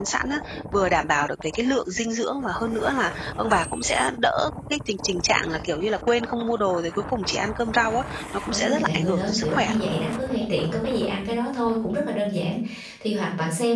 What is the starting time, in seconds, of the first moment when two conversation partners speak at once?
8.5 s

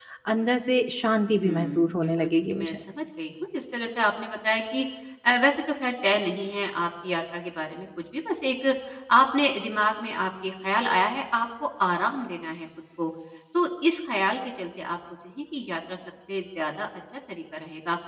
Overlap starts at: 1.3 s

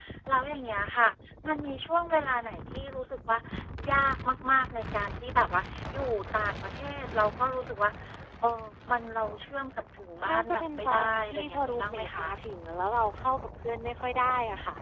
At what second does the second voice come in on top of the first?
10.2 s

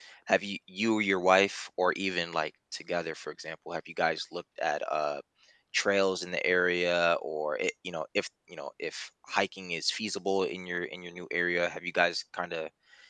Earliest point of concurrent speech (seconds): none

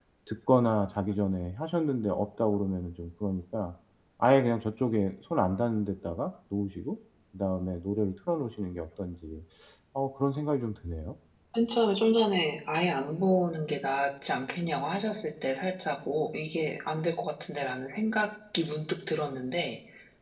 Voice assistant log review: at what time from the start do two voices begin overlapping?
none

